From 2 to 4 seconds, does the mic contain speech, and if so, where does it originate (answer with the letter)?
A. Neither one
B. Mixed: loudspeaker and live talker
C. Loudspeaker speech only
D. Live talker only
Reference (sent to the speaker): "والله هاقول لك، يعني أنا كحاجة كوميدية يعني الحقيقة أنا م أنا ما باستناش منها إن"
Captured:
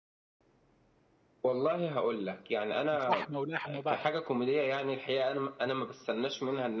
B